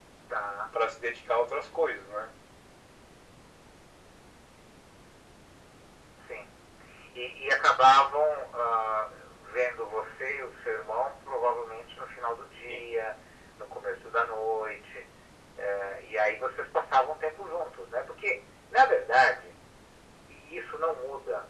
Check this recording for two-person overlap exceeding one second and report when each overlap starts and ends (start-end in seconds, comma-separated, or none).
none